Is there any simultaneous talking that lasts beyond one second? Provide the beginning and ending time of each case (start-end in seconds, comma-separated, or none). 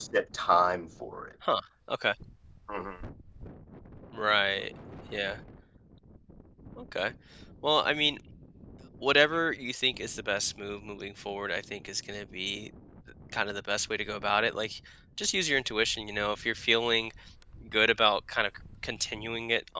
none